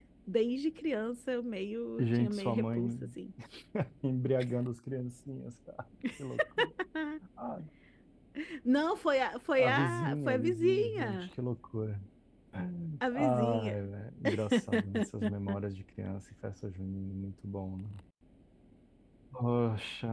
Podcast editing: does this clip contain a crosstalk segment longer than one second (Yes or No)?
Yes